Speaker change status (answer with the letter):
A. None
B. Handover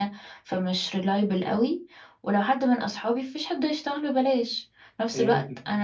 A